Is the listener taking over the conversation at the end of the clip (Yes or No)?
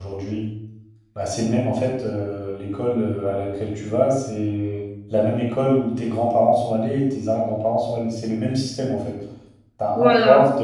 No